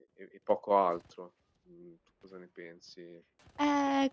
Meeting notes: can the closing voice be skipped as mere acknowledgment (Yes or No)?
No